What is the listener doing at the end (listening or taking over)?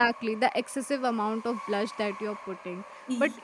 listening